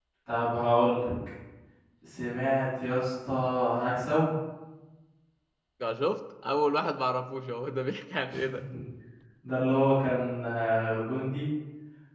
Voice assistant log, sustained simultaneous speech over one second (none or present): none